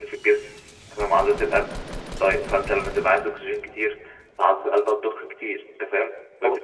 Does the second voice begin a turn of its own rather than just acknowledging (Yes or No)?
No